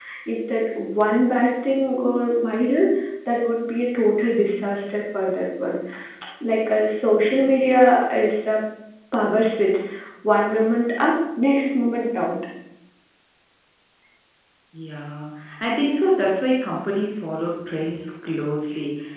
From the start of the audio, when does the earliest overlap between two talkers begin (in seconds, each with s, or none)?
none